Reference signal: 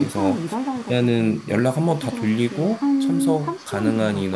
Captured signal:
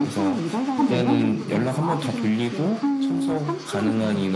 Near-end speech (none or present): present